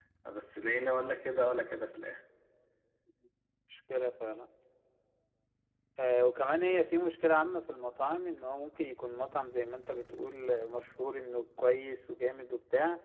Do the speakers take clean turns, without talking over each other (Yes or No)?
Yes